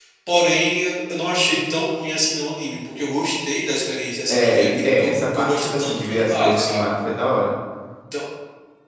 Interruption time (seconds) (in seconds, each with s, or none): 4.3 s